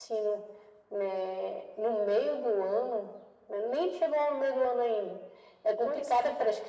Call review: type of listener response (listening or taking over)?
listening